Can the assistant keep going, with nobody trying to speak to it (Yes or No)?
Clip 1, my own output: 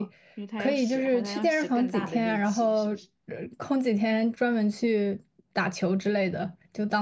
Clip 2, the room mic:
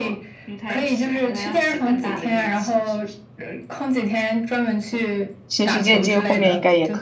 No